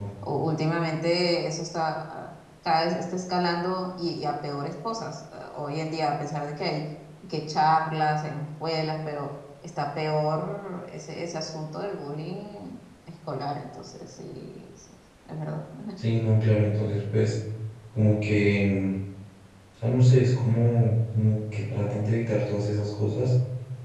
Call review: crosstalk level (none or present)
none